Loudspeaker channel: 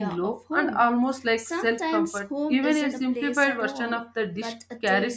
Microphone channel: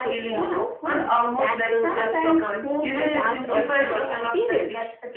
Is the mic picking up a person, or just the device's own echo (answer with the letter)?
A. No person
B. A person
B